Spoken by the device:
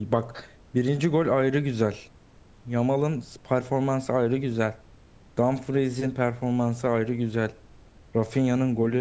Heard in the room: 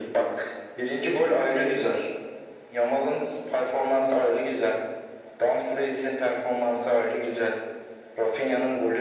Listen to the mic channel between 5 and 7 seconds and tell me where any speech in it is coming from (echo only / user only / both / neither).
echo only